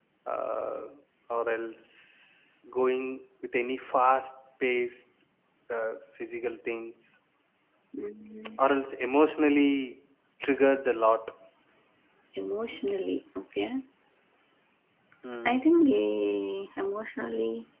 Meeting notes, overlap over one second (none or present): none